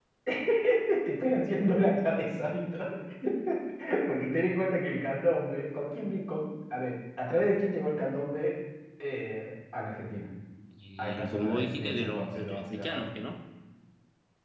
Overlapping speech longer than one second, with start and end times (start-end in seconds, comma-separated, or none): 11.0-13.2